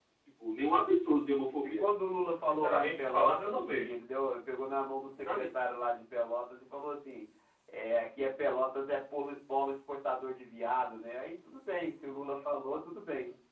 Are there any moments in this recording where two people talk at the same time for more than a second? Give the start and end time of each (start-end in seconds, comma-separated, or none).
2.5-3.9